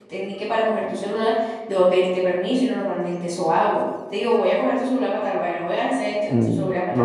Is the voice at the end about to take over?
Yes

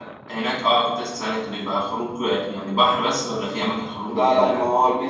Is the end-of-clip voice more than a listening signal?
Yes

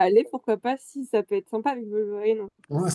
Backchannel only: No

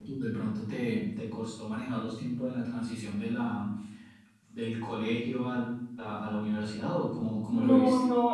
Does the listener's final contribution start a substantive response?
Yes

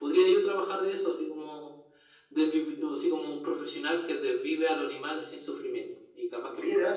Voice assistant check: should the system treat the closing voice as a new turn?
Yes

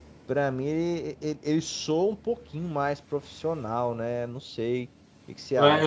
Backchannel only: No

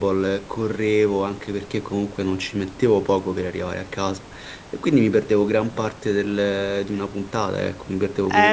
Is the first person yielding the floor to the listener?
Yes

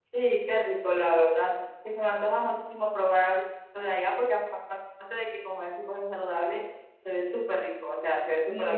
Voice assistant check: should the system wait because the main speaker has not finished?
No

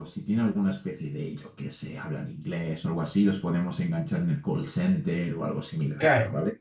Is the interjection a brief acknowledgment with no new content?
No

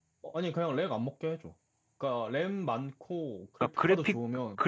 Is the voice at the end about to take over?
Yes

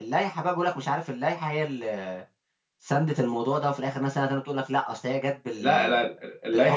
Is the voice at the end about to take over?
Yes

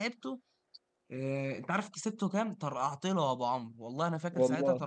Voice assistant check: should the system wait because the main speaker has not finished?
Yes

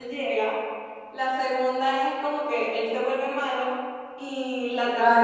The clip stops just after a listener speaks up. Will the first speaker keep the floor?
Yes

